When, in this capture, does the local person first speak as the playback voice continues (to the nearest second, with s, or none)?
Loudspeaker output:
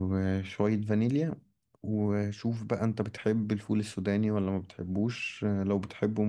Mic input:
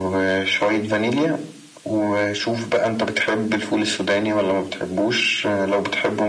none